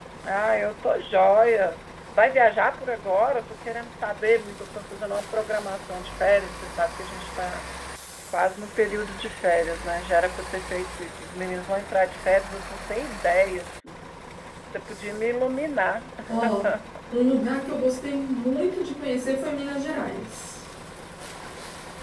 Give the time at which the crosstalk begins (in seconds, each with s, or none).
none